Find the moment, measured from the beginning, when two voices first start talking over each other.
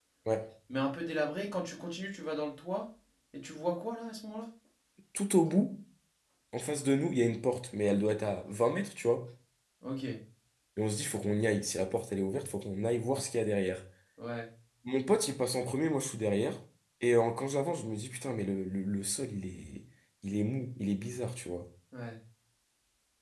none

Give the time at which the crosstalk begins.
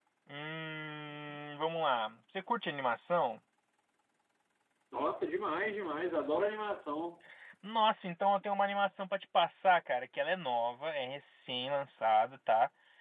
none

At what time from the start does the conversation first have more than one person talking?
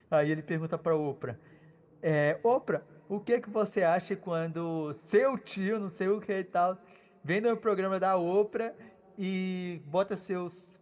none

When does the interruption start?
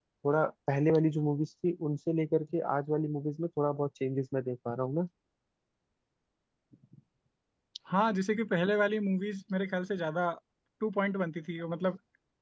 none

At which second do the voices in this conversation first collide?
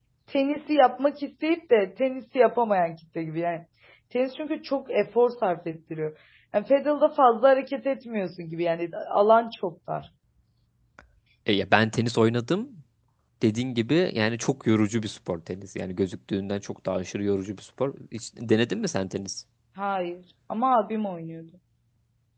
none

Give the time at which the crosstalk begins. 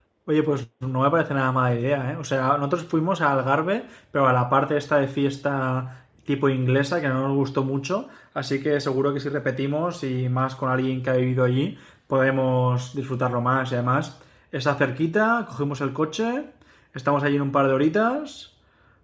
none

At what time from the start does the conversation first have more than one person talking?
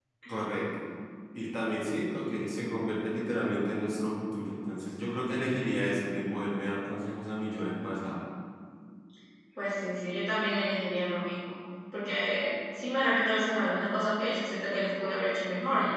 none

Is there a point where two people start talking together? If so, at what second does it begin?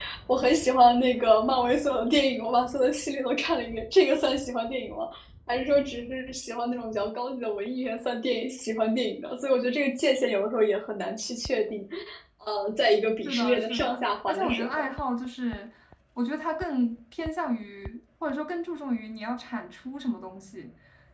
13.2 s

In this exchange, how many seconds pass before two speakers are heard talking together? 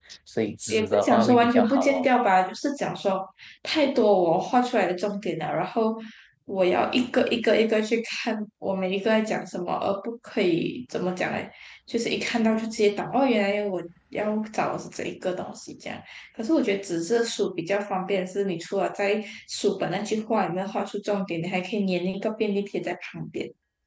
0.7 s

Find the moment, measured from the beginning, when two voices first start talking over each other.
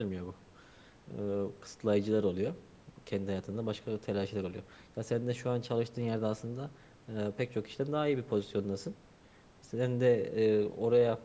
none

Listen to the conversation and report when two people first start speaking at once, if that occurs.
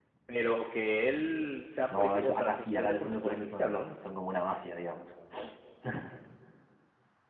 1.9 s

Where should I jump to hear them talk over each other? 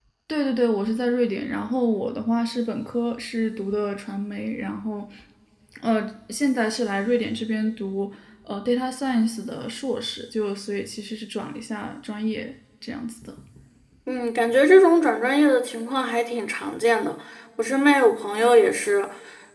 none

